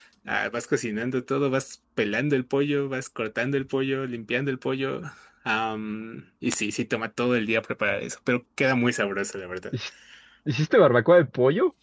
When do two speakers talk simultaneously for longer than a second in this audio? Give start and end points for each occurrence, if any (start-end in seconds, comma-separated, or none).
none